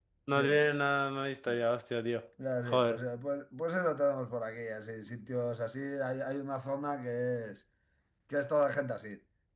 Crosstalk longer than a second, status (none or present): none